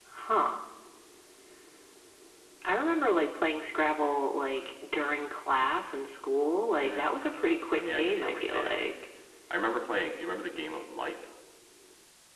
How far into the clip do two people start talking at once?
6.8 s

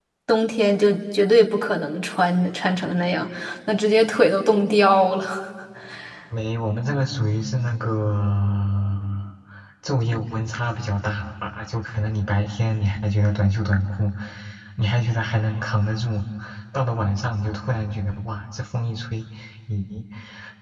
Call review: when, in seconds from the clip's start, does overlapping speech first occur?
none

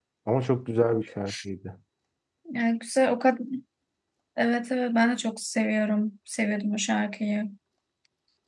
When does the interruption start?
none

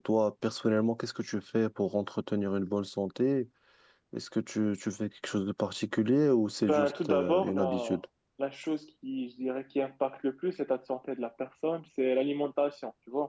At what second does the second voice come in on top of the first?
6.6 s

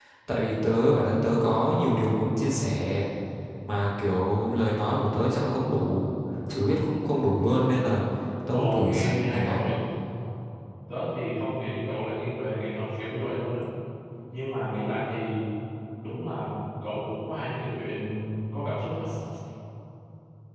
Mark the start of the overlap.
8.5 s

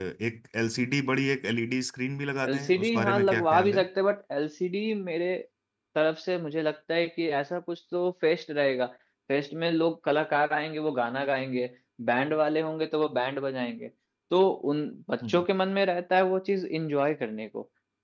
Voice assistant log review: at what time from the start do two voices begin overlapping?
2.4 s

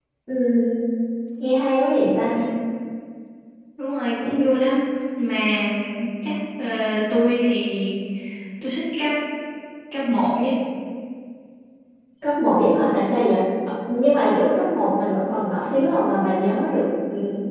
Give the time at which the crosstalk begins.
none

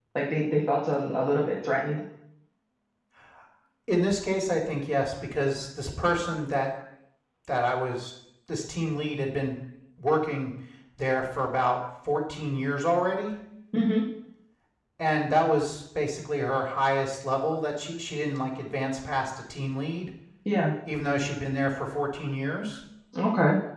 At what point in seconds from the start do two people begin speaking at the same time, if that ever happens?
none

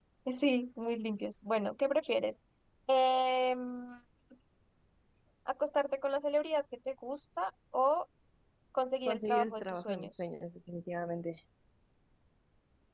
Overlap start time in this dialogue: 9.1 s

